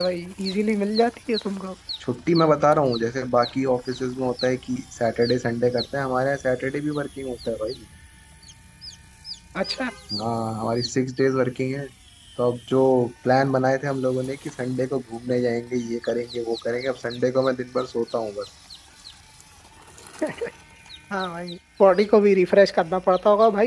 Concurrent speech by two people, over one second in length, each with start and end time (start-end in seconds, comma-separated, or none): none